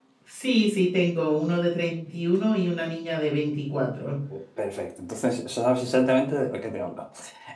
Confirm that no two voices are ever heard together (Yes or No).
Yes